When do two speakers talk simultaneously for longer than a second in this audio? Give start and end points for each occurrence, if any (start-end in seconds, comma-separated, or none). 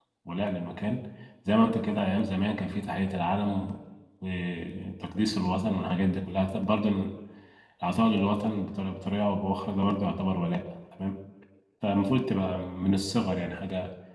none